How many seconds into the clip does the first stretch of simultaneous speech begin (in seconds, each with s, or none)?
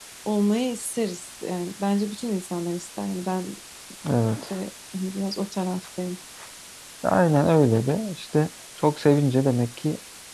none